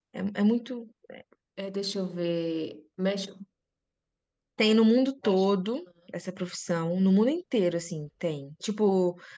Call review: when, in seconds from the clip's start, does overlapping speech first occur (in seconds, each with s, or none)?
none